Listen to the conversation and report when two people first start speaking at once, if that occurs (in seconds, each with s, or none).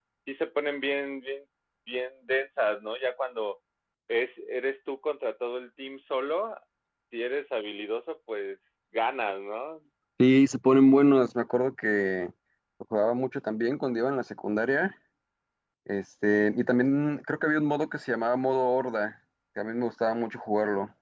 none